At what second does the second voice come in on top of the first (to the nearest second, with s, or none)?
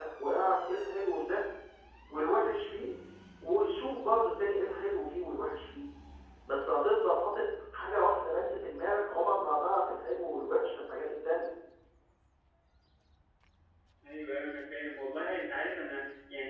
none